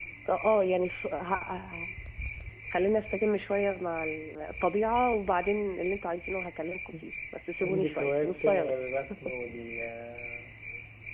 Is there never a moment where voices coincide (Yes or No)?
No